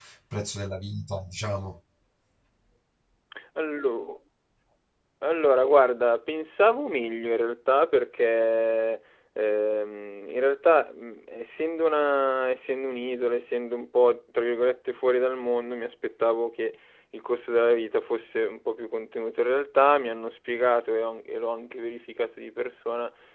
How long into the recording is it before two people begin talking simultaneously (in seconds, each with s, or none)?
none